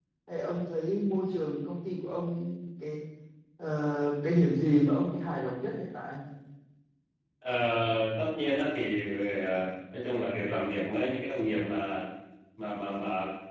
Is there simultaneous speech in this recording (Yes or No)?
No